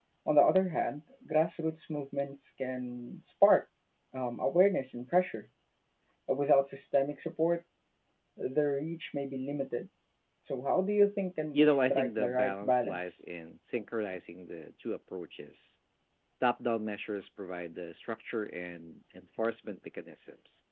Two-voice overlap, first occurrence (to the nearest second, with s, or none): 12 s